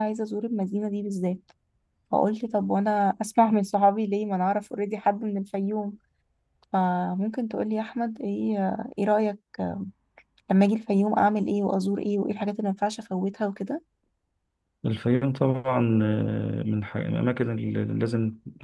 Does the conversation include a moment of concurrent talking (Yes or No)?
No